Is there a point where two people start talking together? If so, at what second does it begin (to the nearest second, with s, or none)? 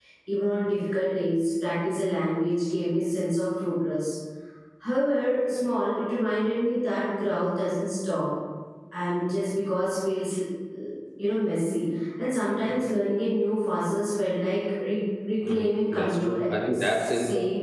15 s